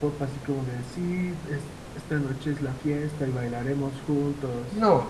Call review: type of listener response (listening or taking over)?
listening